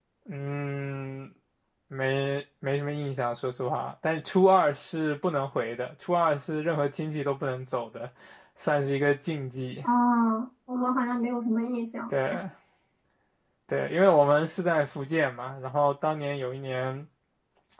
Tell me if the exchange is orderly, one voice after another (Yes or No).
Yes